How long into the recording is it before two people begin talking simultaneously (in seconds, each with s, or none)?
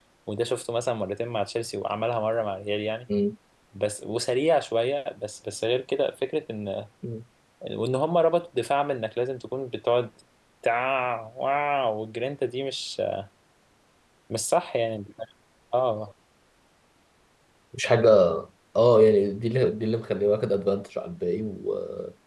none